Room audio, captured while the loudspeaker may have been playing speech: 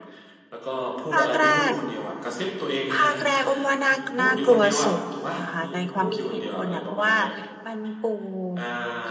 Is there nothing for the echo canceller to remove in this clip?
No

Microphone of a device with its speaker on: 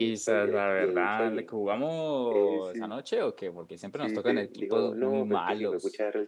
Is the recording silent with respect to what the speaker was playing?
No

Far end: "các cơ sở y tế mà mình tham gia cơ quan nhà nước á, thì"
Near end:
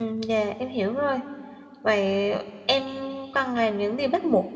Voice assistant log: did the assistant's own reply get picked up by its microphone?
No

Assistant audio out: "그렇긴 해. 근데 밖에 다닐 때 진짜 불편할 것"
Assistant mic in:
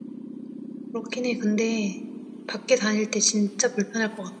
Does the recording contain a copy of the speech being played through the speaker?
Yes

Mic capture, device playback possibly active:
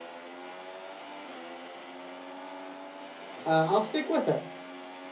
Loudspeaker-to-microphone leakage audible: No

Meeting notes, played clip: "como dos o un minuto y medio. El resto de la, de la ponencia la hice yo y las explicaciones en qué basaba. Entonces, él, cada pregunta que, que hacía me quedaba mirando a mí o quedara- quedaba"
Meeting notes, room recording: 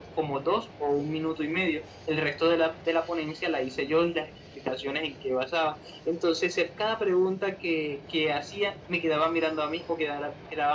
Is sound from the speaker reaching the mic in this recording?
Yes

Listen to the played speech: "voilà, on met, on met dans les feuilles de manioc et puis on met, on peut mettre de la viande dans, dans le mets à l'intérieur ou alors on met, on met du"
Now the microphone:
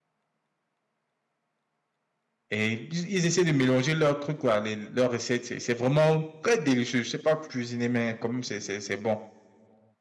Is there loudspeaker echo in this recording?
No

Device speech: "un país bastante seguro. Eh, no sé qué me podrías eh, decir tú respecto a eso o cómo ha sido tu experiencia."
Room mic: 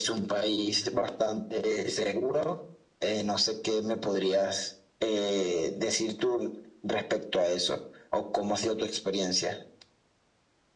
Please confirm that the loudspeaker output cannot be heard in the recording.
No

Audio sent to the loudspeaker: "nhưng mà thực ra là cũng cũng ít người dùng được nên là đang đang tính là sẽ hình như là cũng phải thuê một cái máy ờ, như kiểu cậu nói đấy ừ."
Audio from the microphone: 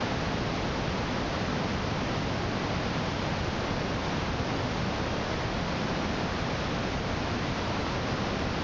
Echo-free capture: Yes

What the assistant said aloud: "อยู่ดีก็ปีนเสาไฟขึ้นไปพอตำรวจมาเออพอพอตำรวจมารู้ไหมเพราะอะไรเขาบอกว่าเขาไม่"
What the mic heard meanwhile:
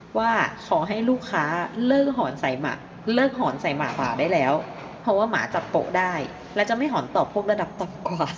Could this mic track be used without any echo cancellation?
Yes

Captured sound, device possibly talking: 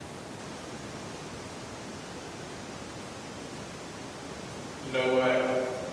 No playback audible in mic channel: Yes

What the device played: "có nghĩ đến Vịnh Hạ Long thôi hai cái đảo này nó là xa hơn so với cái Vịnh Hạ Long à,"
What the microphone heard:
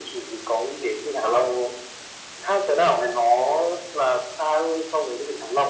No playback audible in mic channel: No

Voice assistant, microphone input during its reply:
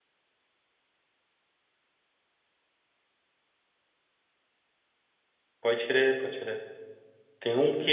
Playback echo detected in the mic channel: No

